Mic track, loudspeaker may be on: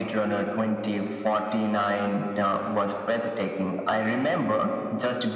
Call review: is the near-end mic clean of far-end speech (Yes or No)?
No